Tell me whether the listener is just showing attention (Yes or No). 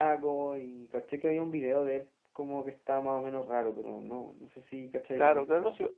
No